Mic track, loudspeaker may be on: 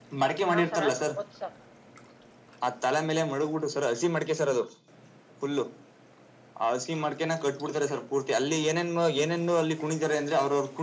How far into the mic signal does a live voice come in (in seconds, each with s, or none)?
0.5 s